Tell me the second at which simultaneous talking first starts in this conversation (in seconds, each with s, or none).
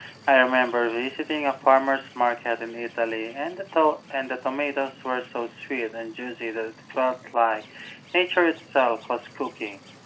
none